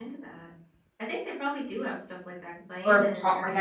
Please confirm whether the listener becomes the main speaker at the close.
Yes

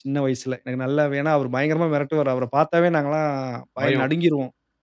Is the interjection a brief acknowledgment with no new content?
Yes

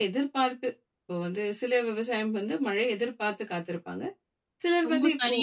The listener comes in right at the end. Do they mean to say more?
Yes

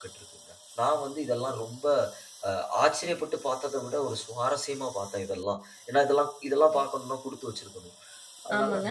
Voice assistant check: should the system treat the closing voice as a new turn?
Yes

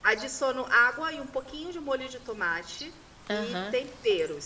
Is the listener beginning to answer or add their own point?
No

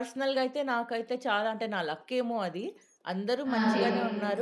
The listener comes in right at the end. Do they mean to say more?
No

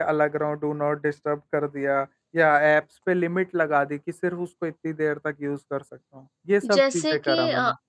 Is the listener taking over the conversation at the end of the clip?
Yes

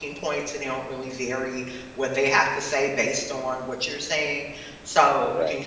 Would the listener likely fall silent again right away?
Yes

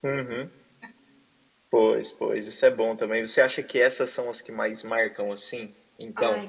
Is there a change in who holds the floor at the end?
Yes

